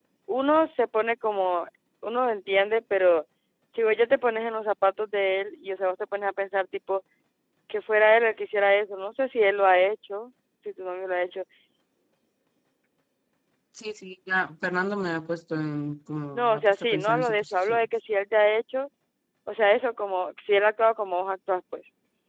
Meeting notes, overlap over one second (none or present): present